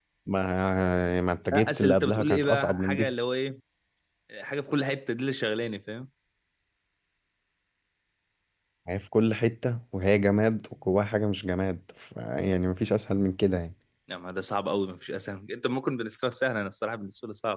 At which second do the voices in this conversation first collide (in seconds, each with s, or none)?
1.5 s